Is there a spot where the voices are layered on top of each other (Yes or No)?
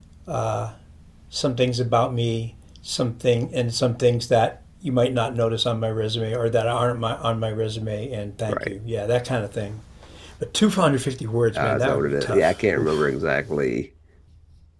Yes